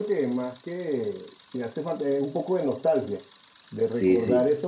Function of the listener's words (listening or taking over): listening